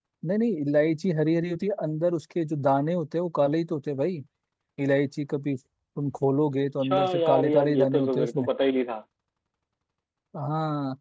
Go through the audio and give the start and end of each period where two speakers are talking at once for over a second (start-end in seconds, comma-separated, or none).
6.8-8.5